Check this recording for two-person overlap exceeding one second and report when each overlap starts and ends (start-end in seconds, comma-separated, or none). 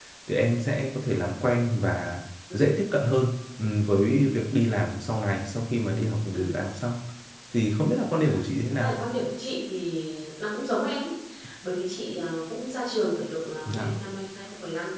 none